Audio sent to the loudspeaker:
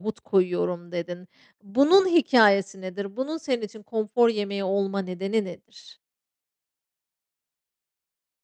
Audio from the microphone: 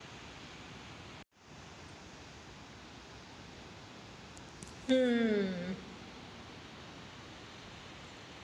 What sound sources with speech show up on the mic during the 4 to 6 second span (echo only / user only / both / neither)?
user only